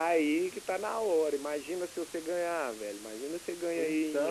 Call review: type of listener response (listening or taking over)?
listening